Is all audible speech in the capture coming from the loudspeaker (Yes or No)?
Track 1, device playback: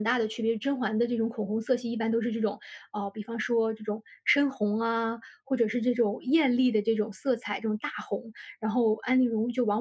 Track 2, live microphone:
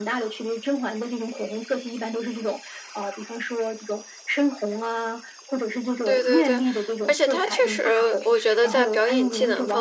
No